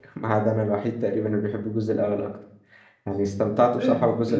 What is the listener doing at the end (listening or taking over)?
taking over